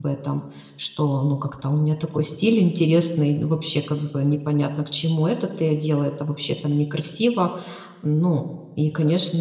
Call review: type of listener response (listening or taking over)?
listening